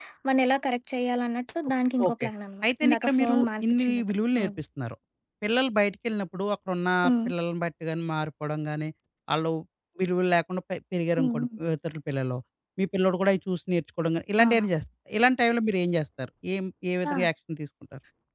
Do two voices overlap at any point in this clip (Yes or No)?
Yes